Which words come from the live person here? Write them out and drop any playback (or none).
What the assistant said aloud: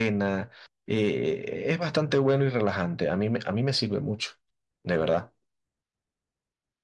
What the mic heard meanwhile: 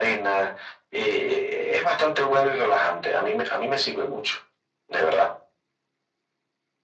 none